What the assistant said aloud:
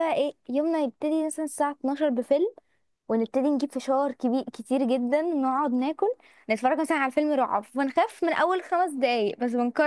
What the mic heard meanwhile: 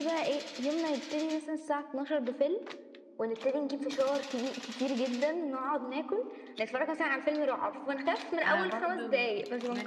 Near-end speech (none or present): present